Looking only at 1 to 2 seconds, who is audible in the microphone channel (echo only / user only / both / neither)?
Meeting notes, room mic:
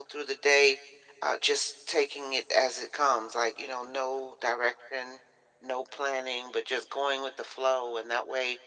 echo only